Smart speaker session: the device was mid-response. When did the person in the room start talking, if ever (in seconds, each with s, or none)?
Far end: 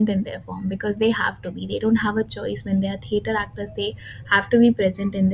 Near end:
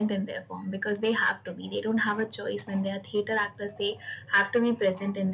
none